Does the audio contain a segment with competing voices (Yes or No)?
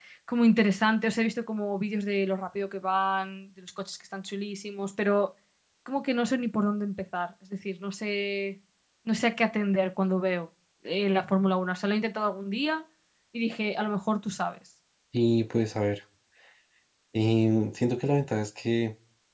No